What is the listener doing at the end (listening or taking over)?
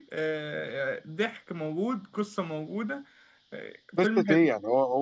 taking over